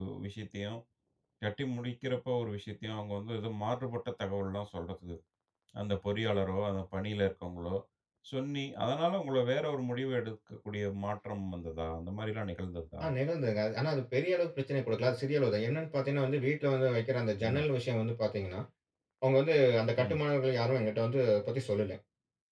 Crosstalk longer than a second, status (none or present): none